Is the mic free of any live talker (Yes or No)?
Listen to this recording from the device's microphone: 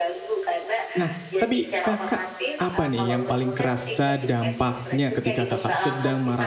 No